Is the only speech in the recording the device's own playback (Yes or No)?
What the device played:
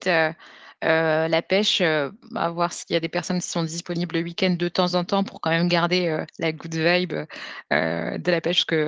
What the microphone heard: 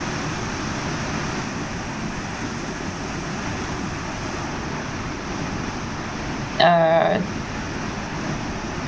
No